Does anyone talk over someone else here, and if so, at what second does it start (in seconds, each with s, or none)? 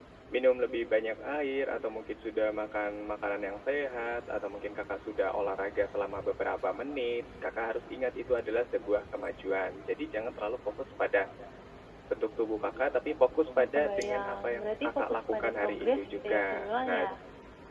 13.6 s